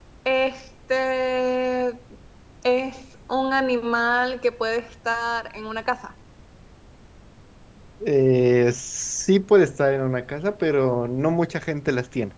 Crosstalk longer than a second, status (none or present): none